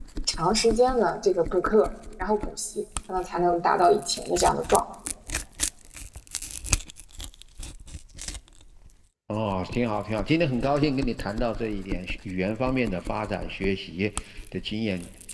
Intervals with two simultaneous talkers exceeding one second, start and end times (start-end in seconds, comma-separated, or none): none